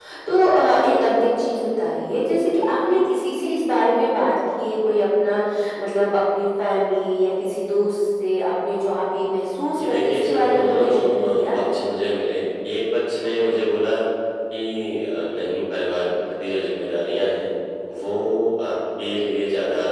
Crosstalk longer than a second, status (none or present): present